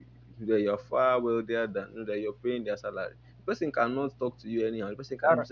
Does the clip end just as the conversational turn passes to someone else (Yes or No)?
No